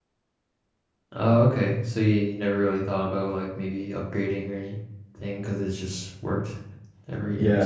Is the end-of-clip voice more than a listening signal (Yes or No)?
Yes